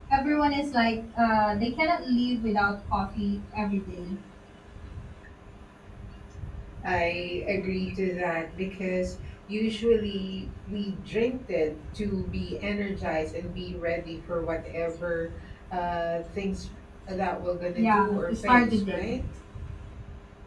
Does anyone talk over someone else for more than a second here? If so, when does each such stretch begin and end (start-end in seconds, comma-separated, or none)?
17.8-19.0